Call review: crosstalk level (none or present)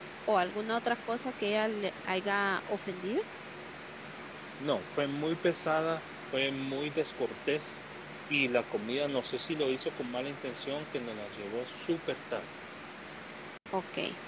none